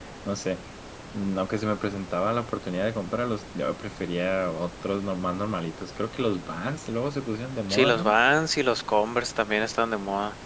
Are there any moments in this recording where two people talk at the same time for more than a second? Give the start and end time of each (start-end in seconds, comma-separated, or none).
none